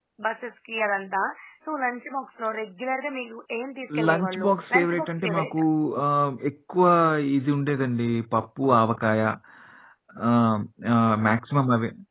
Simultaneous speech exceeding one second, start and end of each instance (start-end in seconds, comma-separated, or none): 4.1-5.6